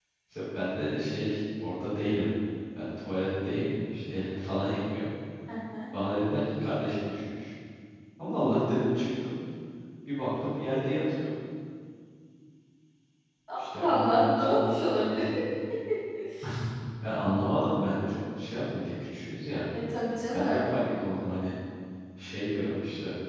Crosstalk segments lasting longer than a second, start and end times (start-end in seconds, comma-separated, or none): 13.8-15.2